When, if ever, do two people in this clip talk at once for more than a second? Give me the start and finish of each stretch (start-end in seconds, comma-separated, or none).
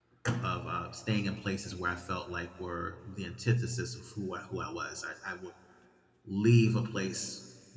none